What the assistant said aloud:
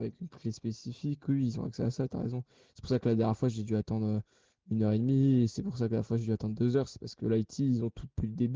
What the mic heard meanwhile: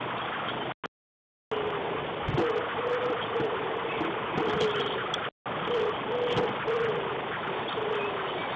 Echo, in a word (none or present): none